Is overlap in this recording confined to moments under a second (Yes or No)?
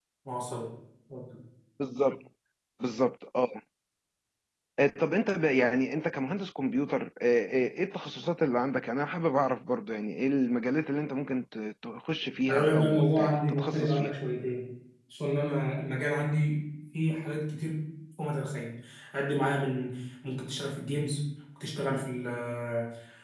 No